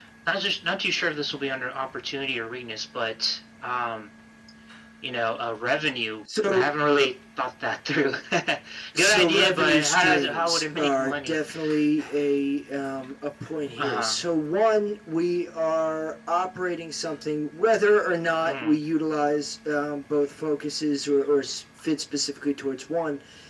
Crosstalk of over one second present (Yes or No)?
Yes